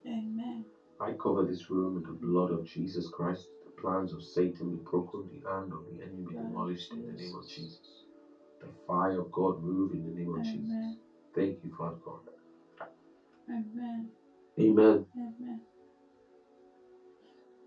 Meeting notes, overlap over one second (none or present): present